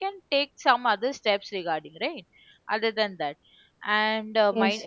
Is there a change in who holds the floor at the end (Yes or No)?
No